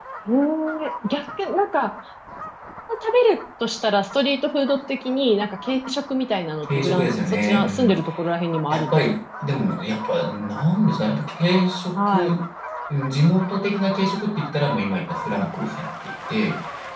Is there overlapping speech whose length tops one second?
Yes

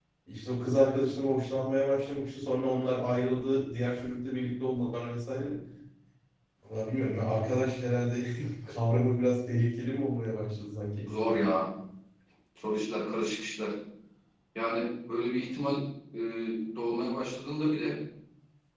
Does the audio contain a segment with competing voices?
No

